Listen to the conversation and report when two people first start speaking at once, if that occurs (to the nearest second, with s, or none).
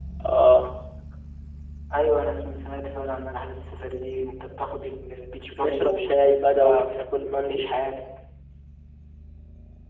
6 s